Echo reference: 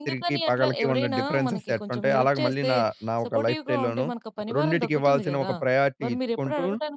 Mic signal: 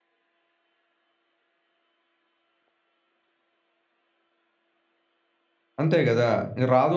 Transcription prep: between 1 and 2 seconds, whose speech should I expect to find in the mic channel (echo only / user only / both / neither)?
neither